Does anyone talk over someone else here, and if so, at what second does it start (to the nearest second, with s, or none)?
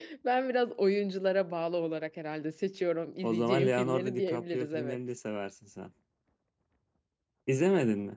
3 s